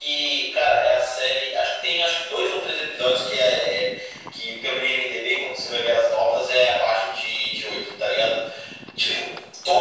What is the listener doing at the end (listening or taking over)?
listening